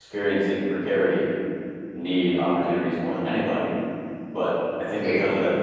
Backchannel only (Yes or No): Yes